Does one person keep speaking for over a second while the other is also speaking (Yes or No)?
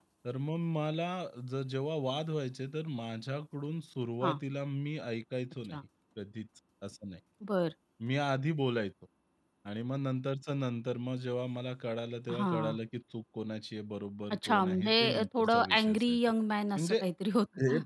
Yes